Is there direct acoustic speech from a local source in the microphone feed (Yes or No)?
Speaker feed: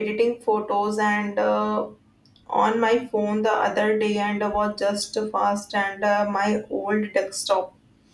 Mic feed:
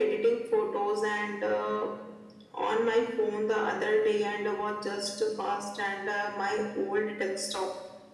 No